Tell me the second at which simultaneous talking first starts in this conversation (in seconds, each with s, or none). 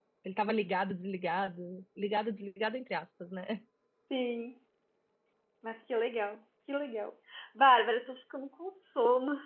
none